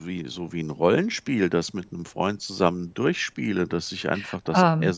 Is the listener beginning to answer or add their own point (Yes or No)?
No